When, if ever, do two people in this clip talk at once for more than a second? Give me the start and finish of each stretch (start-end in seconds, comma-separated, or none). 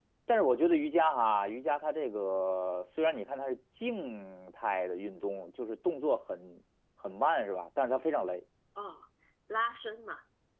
none